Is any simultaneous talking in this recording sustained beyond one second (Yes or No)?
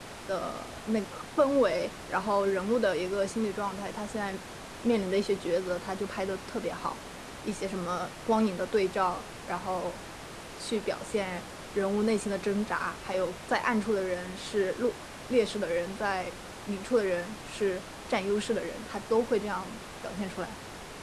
No